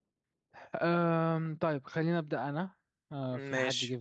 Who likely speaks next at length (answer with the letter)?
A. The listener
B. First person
B